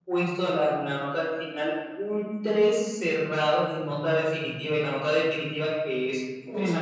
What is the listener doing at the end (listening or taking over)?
listening